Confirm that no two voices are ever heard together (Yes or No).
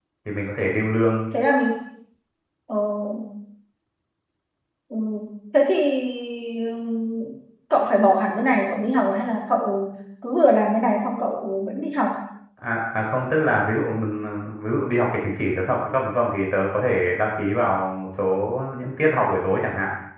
Yes